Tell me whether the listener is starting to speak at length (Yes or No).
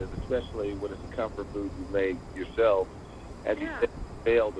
No